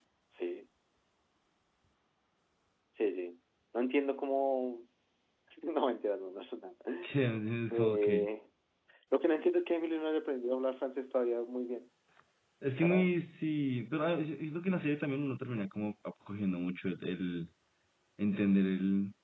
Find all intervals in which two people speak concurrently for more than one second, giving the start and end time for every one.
none

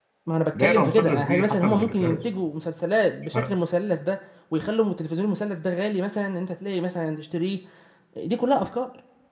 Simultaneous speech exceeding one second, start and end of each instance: 0.6-2.2

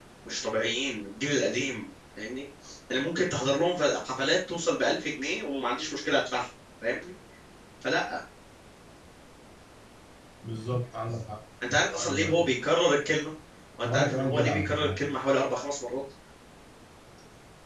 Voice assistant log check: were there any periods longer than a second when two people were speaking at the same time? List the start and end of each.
13.8-15.1

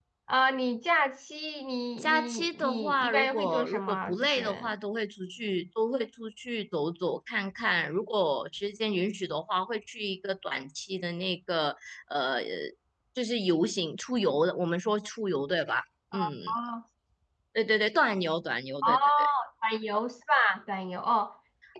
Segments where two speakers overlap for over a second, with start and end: 2.0-4.7

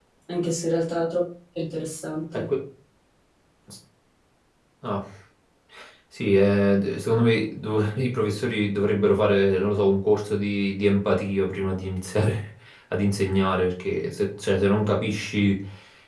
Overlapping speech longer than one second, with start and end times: none

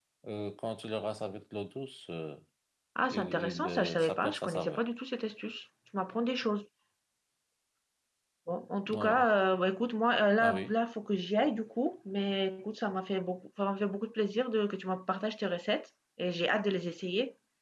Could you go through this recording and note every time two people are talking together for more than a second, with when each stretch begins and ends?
3.1-4.8

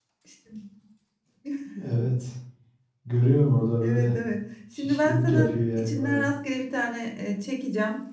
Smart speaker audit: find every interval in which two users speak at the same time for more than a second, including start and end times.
4.8-6.3

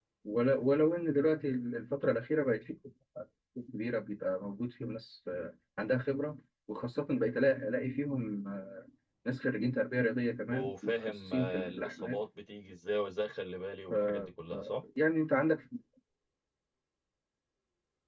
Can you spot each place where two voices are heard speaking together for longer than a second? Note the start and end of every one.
10.5-12.2

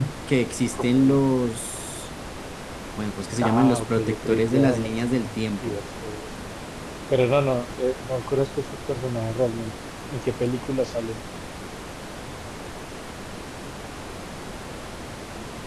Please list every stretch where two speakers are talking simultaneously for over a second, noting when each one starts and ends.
3.4-5.8

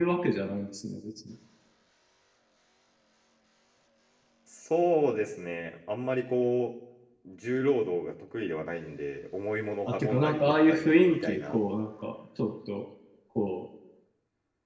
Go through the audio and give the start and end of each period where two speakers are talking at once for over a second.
9.8-11.6

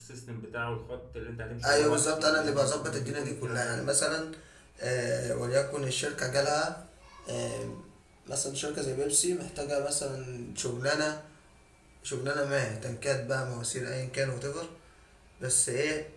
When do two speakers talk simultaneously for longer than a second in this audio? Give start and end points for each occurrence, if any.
1.6-4.2

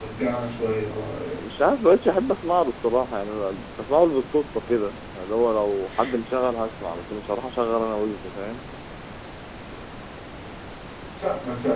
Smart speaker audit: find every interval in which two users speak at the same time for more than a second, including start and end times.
none

